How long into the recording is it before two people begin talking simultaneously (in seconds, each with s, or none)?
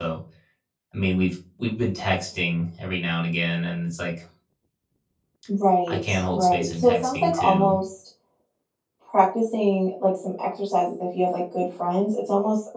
5.9 s